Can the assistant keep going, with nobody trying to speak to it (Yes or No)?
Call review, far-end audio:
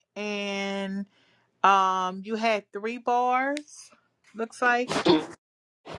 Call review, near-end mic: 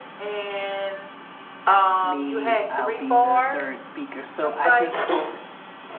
No